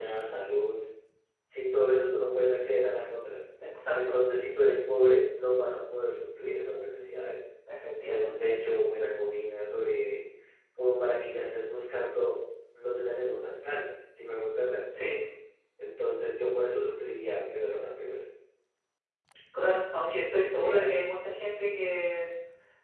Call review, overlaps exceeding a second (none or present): none